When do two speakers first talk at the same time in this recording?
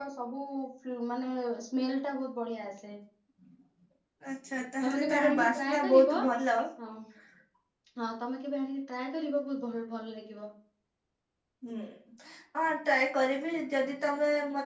5 s

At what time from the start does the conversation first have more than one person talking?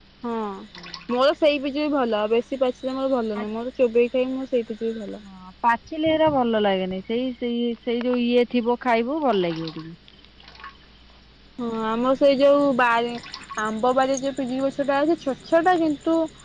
none

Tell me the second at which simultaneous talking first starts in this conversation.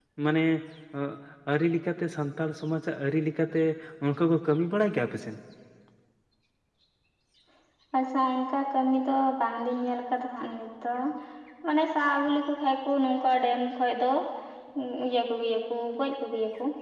none

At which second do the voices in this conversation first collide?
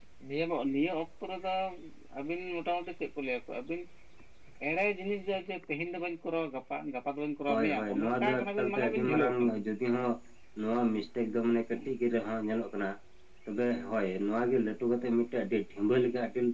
7 s

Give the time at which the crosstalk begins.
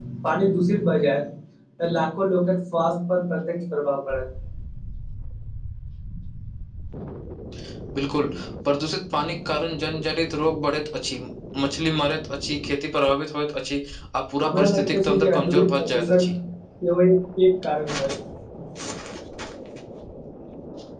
14 s

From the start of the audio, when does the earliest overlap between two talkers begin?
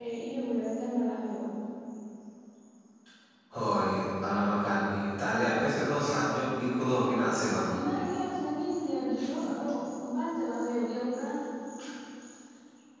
none

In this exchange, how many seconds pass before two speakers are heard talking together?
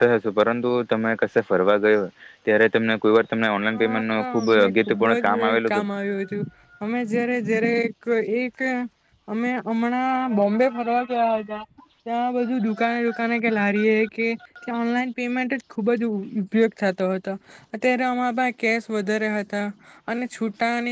4 s

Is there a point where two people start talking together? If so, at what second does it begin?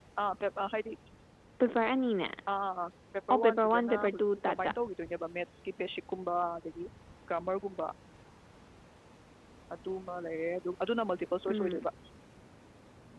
3 s

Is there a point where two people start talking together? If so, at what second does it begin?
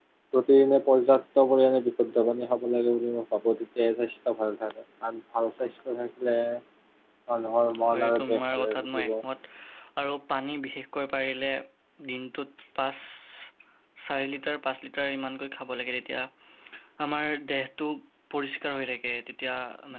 8 s

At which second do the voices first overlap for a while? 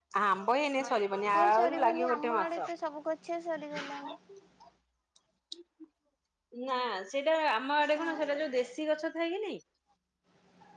1 s

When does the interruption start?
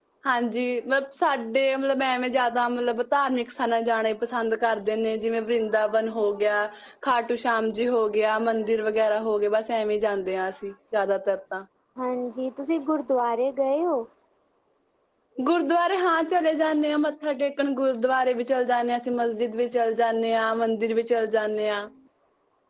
none

